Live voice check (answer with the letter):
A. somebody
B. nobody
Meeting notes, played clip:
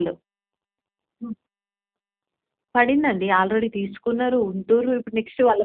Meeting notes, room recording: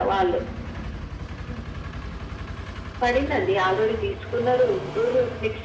B